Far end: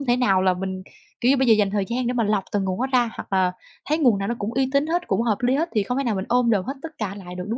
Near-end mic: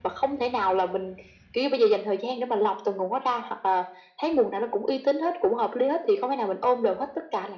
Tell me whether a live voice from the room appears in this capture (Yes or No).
No